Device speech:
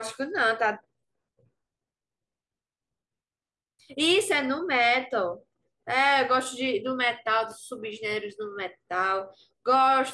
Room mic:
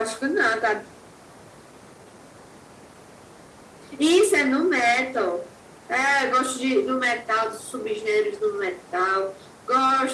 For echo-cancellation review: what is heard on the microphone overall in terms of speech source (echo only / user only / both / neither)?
echo only